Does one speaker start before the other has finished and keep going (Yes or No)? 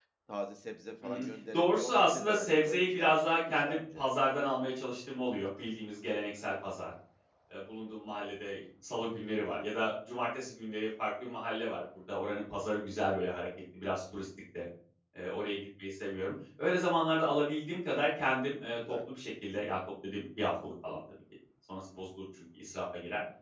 Yes